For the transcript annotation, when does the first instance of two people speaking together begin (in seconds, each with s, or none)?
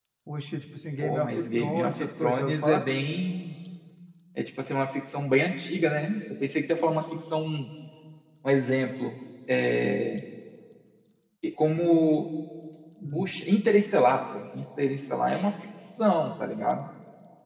1.0 s